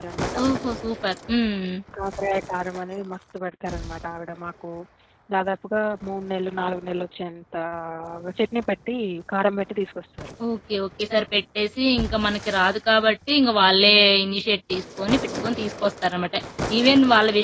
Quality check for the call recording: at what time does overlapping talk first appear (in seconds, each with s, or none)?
none